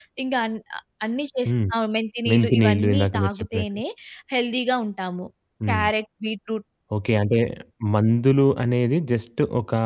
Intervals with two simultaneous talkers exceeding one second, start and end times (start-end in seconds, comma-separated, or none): 2.3-3.7